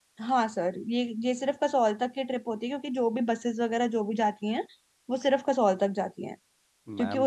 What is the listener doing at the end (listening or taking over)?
listening